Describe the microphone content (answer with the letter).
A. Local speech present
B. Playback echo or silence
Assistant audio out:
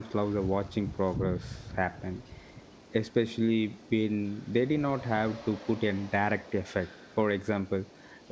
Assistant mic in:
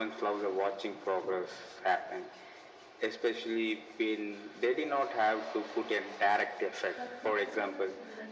A